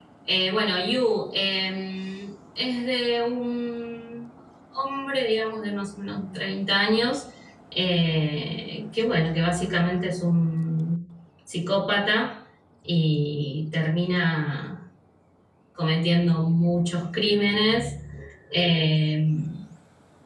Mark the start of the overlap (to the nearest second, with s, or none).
none